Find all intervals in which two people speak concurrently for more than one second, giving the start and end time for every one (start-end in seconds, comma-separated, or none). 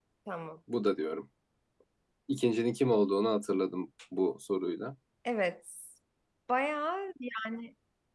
none